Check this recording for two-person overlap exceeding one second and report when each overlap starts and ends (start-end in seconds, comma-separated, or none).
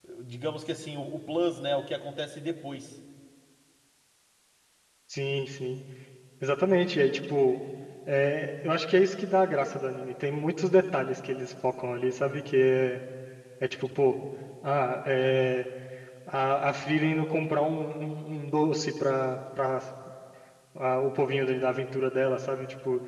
none